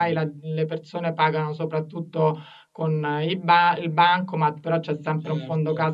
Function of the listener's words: listening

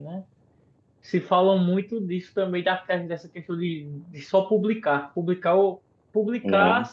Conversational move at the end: listening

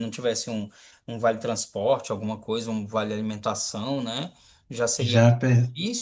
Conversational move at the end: listening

